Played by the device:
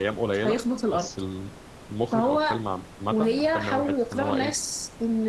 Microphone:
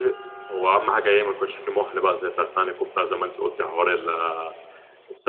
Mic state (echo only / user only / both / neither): user only